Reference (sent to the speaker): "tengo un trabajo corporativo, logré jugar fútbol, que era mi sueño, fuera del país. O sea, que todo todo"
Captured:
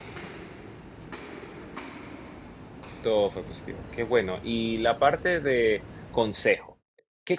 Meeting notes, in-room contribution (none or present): present